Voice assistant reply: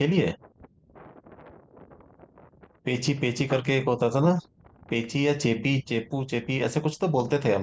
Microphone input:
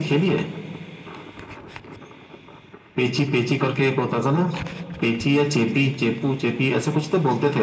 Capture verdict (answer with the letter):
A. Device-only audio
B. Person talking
A